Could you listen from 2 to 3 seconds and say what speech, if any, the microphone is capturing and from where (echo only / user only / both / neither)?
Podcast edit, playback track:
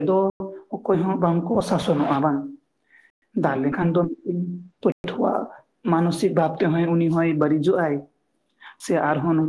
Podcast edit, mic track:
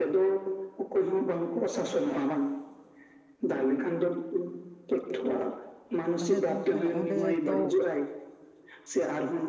echo only